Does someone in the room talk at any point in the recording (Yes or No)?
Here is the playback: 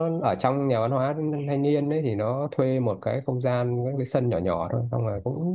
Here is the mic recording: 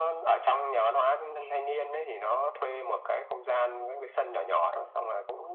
No